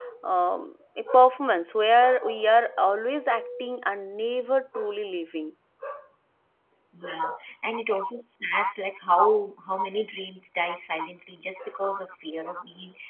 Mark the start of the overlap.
none

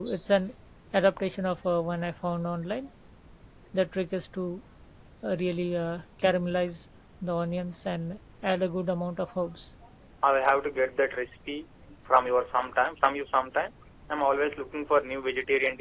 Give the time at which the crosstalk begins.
none

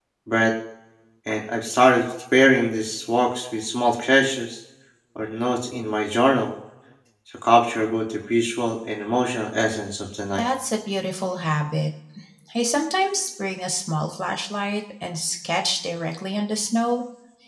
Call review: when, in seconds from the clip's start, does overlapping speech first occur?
none

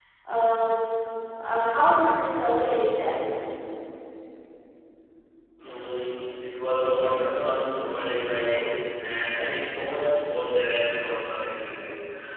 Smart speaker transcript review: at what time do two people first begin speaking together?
none

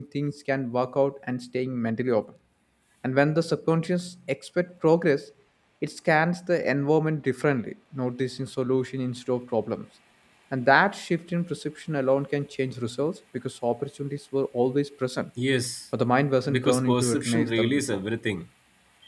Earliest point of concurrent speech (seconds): 16.5 s

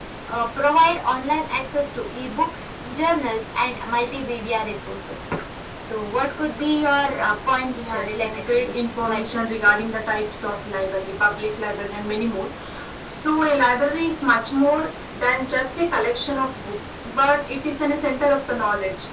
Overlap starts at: 7.8 s

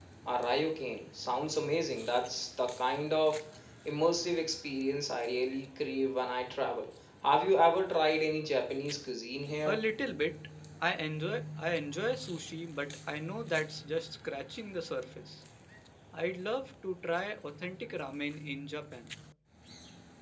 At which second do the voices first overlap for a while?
none

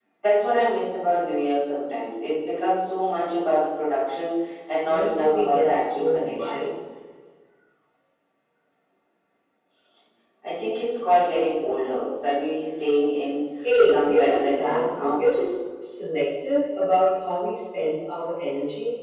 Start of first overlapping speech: 4.8 s

